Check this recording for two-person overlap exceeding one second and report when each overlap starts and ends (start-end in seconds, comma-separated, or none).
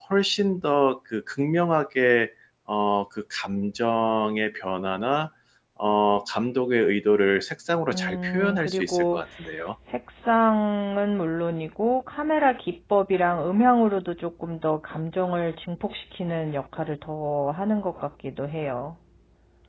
7.9-9.2